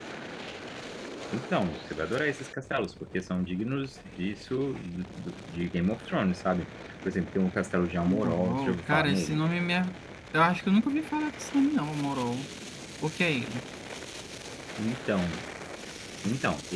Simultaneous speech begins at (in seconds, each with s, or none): 8.1 s